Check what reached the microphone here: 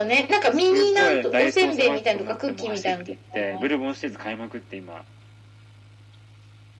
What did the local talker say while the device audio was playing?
none

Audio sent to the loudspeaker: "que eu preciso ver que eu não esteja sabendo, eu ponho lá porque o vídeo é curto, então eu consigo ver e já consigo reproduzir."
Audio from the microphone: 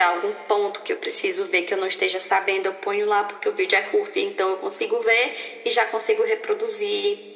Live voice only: none

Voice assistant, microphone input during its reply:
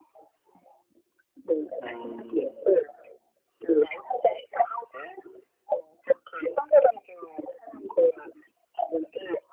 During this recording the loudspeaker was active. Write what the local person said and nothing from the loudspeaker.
음,

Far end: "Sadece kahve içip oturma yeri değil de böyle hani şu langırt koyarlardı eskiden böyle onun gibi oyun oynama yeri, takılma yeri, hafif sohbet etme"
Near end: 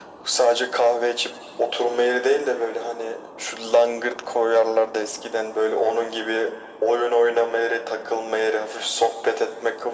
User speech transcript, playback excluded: none

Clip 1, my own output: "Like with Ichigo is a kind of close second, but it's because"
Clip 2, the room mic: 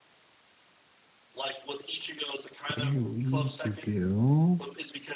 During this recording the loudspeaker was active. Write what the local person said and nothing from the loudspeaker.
There we could go.

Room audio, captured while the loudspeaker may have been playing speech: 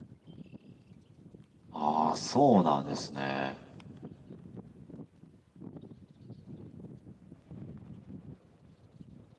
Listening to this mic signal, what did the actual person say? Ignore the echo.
ああ、そうなんですね。

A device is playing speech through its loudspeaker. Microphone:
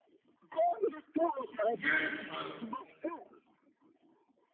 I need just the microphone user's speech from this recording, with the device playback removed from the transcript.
Yes!

